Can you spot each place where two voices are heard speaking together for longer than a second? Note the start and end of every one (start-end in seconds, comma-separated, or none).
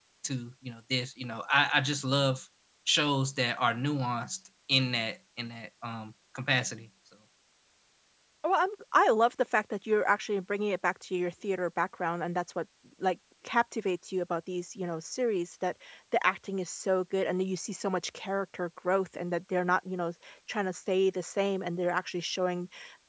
none